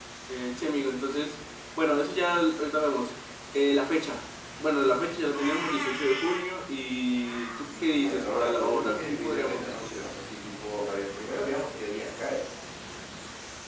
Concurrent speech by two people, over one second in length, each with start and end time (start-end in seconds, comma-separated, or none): 7.8-10.1